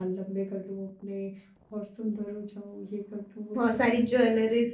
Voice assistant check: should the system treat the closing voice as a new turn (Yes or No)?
Yes